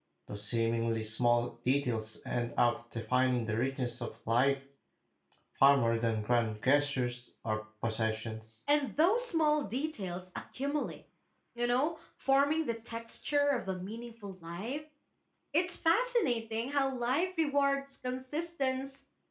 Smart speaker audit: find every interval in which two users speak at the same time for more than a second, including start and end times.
none

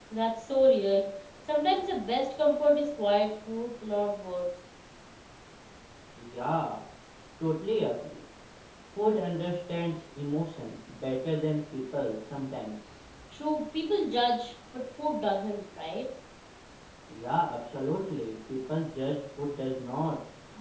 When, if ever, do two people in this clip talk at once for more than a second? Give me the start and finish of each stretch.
none

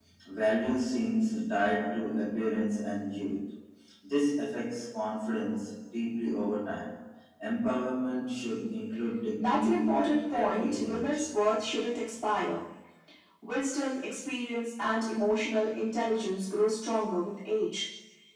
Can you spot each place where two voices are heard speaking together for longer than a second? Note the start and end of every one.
9.4-11.3

